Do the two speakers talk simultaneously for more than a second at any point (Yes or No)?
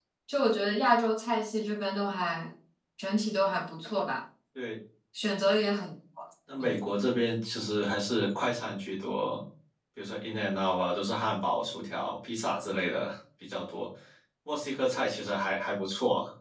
No